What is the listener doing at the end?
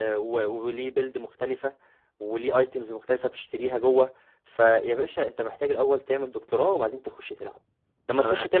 listening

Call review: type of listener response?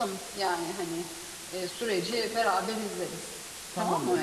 taking over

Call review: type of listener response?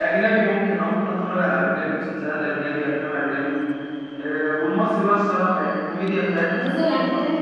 taking over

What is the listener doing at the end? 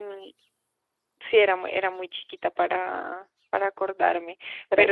listening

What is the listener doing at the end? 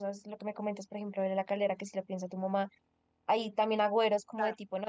listening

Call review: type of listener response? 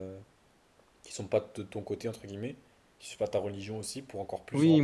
taking over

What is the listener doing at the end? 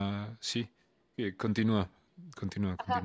taking over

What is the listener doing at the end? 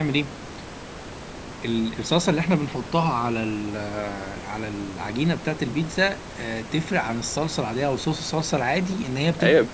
taking over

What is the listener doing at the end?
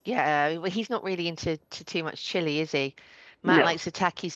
listening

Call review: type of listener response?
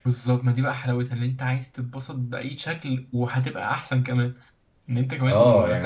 taking over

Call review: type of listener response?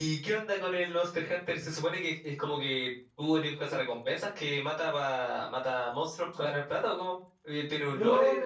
taking over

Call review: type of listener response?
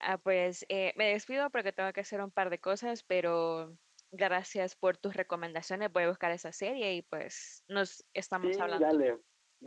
taking over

